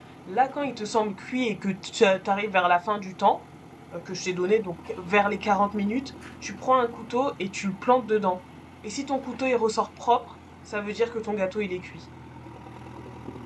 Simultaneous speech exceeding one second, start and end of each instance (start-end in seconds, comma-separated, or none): none